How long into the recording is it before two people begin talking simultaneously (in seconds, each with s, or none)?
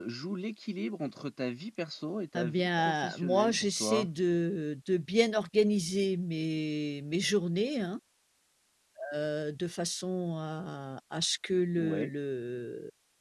2.4 s